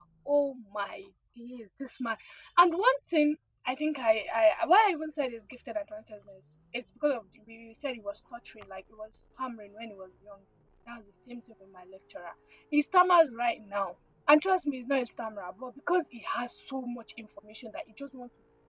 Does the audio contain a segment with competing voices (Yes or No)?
No